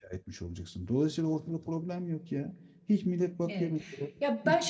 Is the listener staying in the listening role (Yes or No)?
No